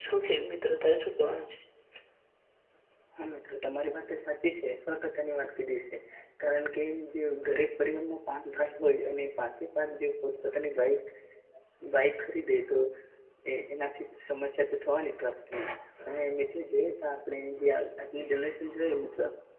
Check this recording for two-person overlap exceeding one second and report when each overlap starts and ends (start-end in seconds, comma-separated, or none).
none